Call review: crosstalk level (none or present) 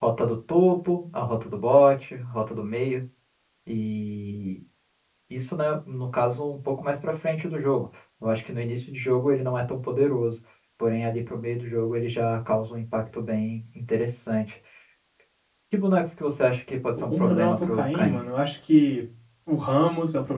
present